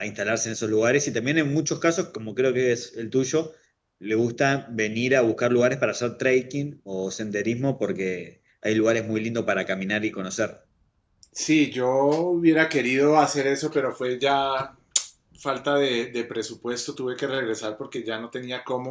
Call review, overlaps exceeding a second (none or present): none